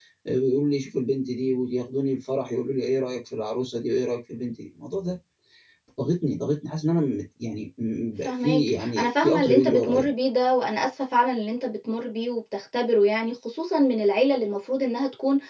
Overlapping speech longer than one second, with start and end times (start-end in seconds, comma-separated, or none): 8.2-10.1